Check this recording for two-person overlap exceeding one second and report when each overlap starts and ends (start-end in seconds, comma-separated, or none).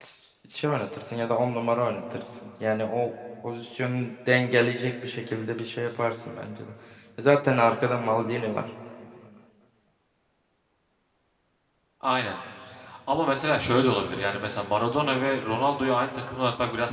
none